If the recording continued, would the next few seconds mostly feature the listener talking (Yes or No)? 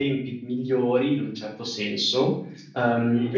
No